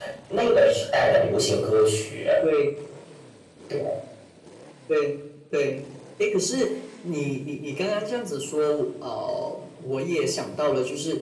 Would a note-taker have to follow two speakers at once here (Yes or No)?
No